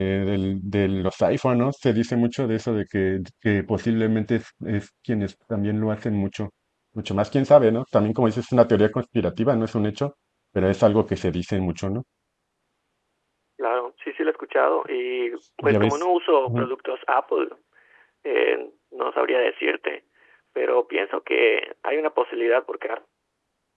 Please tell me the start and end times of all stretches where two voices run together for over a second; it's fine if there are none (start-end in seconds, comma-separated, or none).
none